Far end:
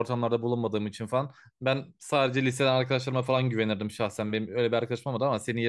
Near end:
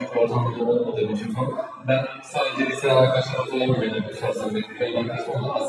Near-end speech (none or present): none